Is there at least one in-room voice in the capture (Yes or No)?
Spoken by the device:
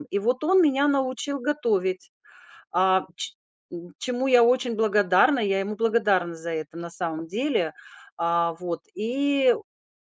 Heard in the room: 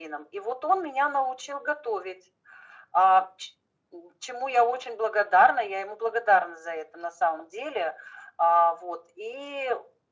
No